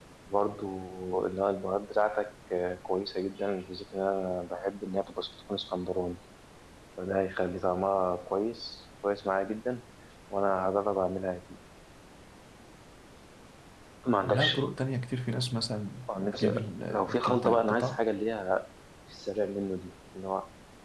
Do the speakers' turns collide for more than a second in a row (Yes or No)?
Yes